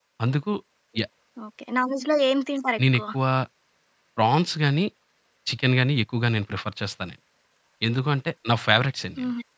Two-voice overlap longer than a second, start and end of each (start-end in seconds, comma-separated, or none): none